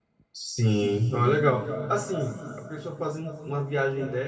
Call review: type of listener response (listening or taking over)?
listening